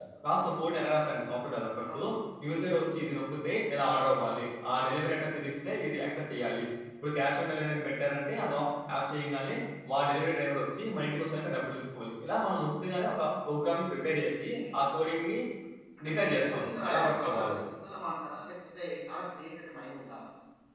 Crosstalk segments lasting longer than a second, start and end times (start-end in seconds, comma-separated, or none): 16.1-17.6